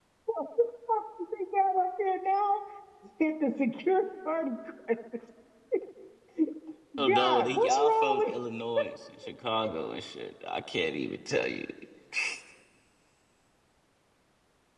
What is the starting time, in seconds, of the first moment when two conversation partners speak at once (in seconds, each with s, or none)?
7.1 s